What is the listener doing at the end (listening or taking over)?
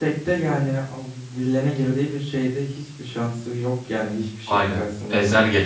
taking over